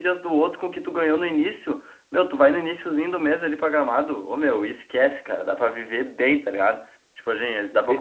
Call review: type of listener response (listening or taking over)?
listening